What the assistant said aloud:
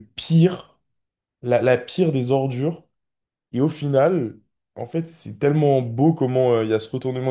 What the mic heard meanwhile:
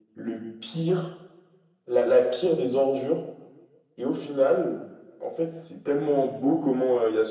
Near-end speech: none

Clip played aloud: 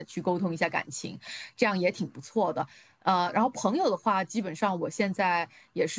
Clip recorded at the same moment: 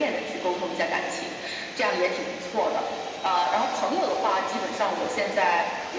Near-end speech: none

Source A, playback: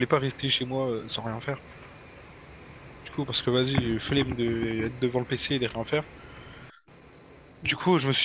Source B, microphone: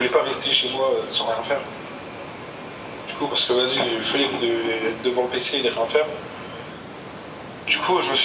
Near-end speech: none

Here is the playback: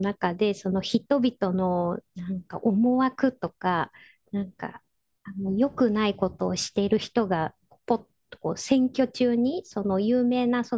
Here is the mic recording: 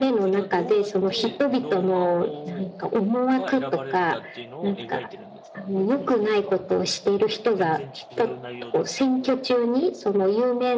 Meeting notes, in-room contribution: present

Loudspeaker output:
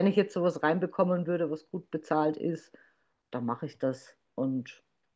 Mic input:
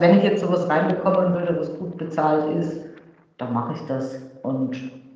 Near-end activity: none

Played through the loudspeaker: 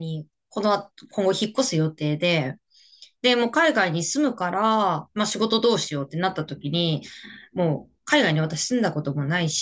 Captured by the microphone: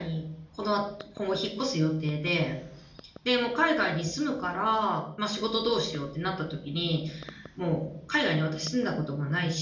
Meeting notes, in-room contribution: none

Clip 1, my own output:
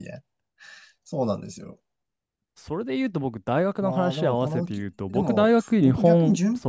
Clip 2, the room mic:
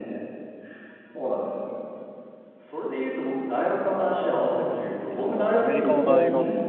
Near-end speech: present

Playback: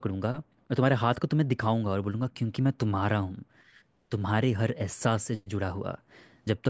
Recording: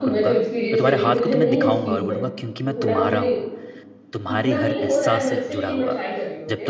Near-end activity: present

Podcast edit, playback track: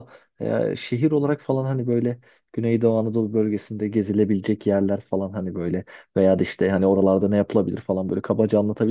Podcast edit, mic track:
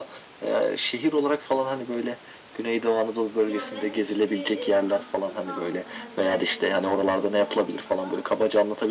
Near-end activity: present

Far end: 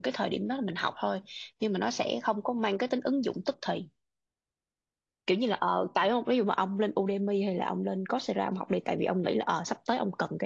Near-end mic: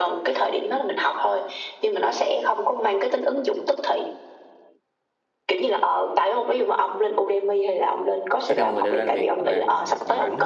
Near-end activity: present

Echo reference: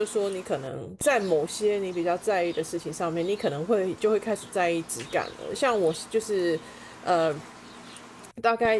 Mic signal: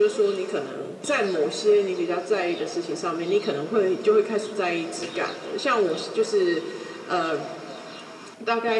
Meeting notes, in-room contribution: none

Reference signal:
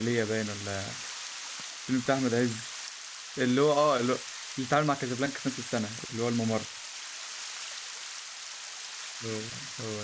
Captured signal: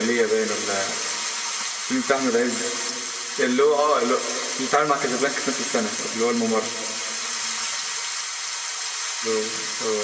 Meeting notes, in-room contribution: none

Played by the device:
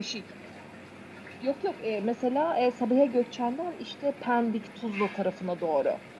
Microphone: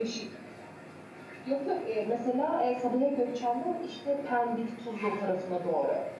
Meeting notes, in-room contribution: none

